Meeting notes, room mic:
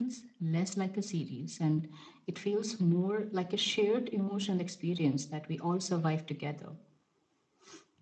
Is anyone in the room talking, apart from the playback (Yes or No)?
No